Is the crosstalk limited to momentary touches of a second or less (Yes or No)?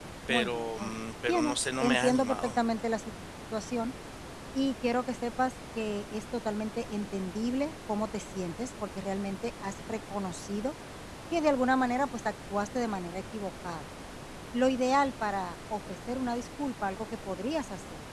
No